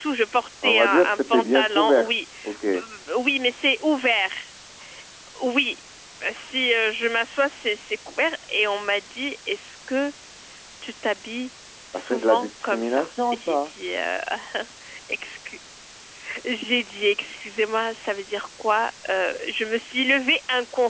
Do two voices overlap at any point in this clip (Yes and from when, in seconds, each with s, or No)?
Yes, from 0.6 s